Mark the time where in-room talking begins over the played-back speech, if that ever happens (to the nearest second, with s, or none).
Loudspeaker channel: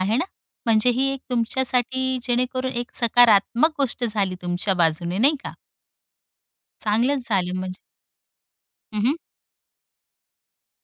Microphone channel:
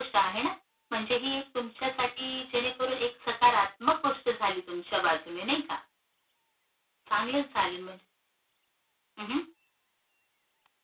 none